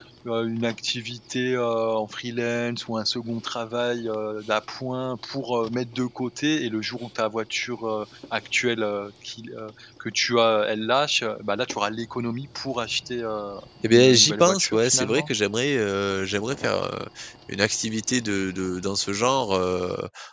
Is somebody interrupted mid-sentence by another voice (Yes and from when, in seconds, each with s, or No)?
Yes, from 13.8 s